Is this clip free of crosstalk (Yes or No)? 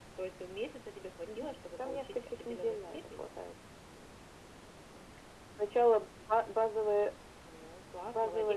No